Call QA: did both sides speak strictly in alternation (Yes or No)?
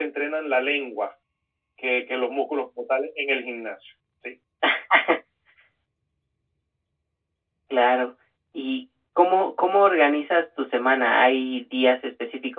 Yes